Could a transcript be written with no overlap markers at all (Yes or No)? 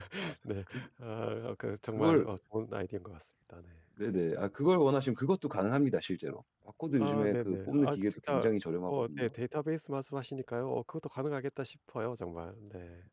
No